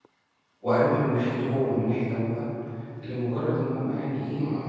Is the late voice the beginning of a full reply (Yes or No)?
No